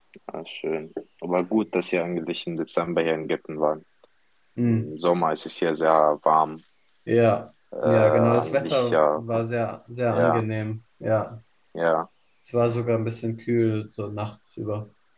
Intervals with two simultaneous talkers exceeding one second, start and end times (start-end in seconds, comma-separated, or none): 7.8-9.2